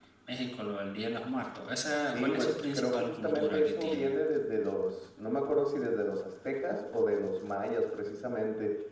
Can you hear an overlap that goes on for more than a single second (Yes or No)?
Yes